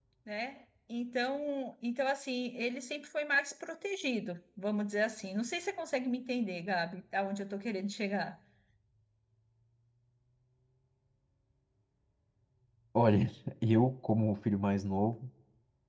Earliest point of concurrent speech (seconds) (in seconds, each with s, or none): none